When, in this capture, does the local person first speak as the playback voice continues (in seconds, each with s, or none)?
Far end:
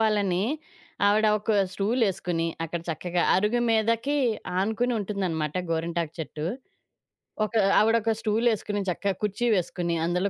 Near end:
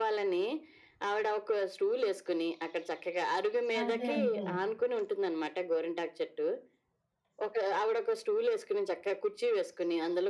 3.8 s